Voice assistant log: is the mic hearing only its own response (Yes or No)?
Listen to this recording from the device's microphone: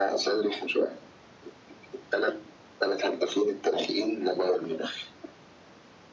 Yes